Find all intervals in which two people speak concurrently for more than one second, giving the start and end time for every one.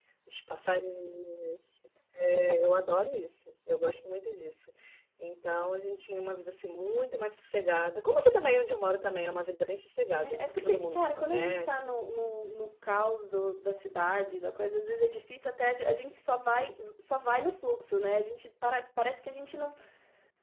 10.1-11.9

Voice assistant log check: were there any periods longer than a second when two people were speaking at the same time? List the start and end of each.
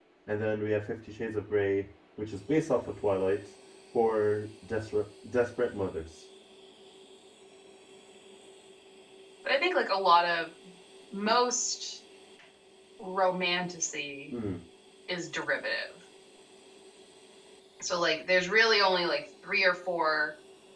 none

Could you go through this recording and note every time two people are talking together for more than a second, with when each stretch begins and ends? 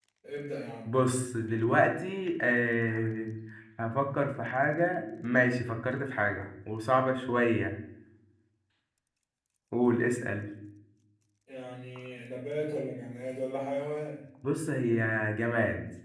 none

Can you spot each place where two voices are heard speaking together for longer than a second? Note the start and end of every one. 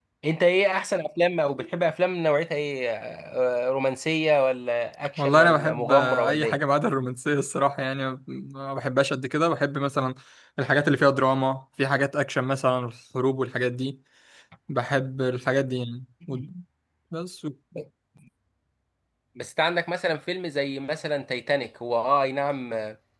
5.2-6.6

